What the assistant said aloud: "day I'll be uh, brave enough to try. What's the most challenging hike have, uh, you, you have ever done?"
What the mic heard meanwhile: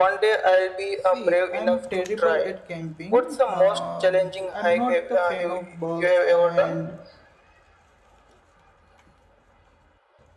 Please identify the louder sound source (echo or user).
echo